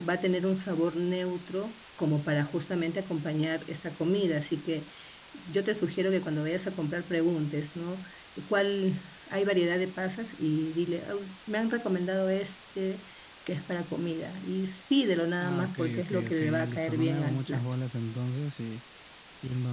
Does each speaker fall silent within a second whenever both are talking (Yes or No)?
No